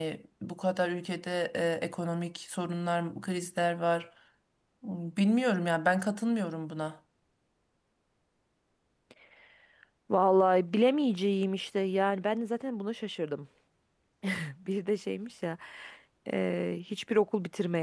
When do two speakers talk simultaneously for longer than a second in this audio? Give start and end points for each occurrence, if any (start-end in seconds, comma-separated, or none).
none